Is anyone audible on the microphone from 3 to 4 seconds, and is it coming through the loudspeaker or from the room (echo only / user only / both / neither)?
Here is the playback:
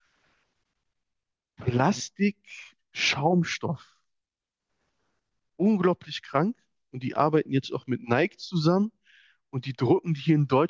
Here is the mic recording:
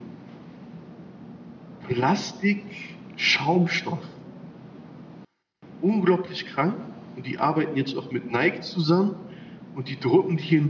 echo only